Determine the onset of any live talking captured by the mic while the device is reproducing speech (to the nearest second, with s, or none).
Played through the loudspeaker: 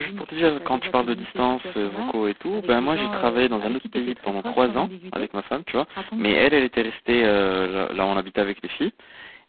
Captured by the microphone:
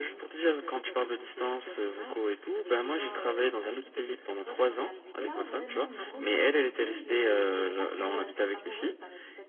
5 s